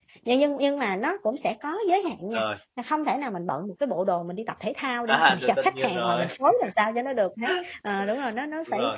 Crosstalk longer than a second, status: present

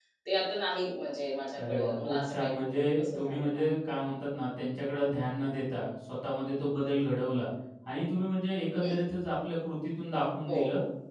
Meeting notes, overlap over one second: present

